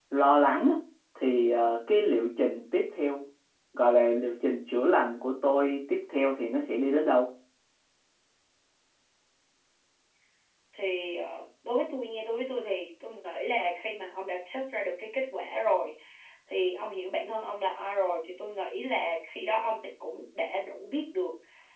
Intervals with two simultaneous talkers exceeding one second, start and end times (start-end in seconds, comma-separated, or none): none